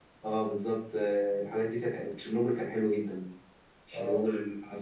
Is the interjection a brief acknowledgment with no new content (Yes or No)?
Yes